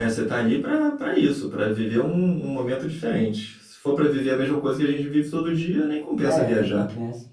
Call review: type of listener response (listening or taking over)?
taking over